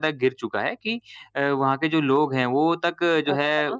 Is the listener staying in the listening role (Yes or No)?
Yes